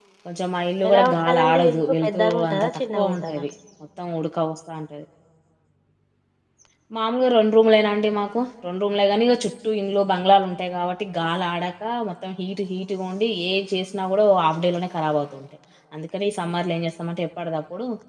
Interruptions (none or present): present